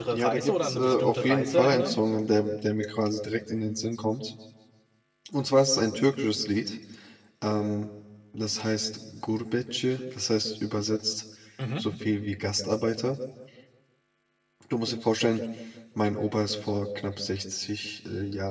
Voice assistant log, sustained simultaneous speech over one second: present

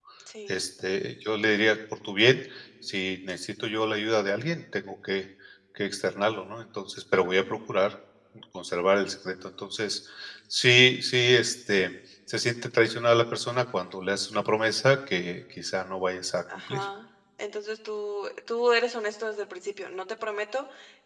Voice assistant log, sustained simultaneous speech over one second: none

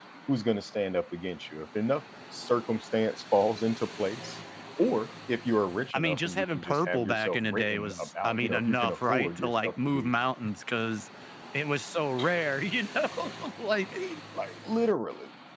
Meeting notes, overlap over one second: present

